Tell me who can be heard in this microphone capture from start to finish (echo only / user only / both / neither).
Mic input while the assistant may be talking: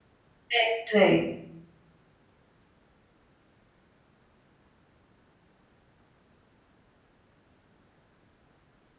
user only